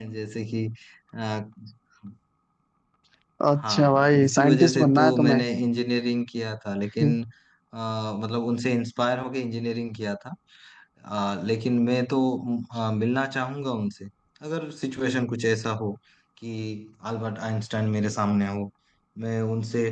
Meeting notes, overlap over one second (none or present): present